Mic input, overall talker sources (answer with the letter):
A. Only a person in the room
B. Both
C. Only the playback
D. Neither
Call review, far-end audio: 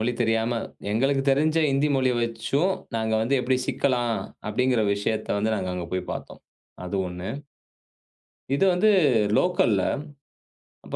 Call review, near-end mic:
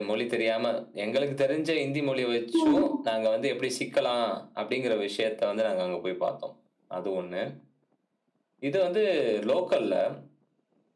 B